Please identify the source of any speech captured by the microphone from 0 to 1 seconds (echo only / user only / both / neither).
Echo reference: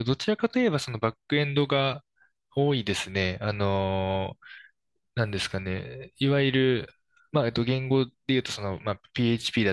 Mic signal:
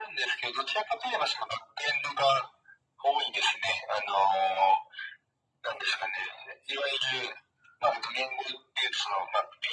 echo only